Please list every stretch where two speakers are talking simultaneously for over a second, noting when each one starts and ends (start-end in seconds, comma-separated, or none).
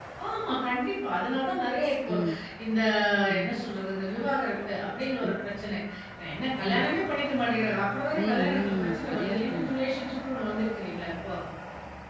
8.2-9.8